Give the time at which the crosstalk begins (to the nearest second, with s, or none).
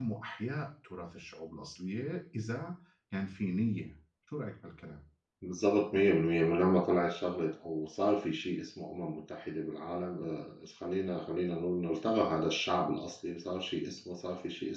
none